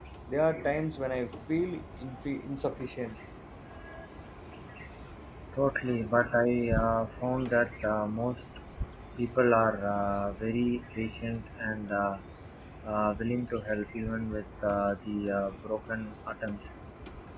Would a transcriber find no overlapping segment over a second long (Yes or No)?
Yes